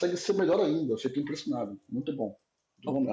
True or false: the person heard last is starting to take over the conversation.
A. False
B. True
B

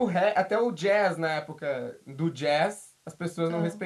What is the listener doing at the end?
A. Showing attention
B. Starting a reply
A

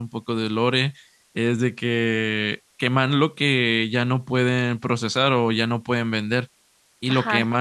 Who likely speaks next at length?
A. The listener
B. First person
B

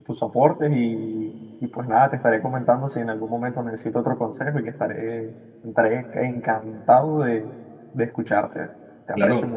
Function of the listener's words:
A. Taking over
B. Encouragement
A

